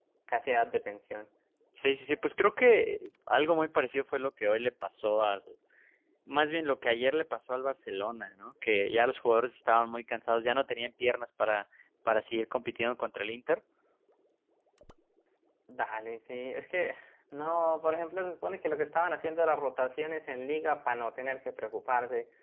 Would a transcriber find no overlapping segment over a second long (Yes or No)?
Yes